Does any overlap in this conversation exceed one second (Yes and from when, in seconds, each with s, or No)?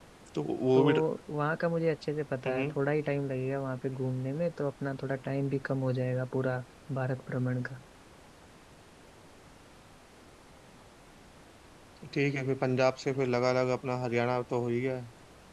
No